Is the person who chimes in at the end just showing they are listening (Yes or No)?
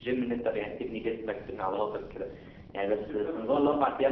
Yes